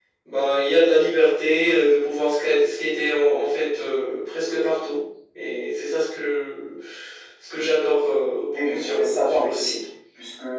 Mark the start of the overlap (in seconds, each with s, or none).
8.5 s